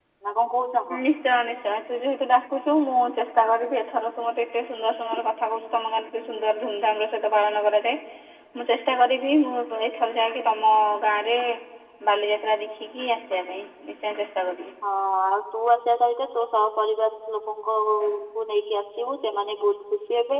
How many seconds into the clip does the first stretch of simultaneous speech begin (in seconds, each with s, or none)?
none